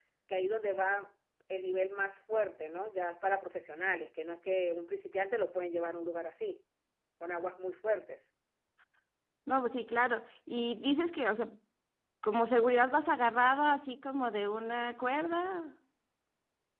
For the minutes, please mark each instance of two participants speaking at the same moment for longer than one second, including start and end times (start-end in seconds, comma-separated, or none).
none